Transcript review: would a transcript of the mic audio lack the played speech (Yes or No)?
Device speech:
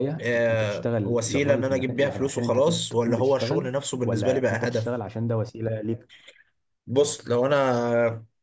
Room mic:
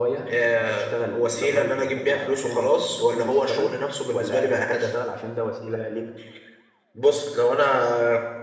No